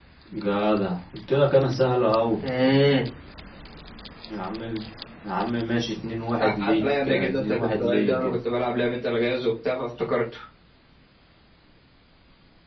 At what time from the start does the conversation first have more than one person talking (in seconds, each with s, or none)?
6.4 s